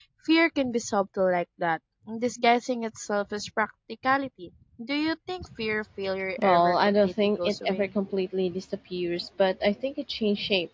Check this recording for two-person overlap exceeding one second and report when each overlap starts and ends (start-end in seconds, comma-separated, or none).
6.4-8.0